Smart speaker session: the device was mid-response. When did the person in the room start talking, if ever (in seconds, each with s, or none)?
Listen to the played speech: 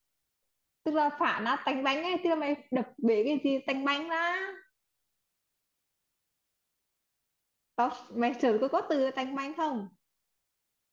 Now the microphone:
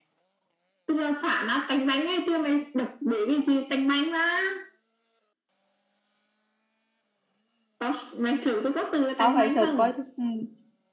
9.2 s